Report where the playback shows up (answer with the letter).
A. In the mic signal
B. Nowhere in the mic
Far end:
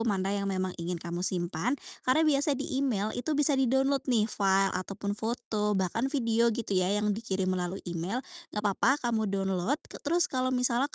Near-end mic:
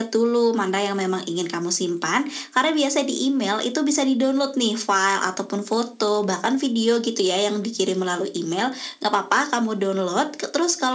A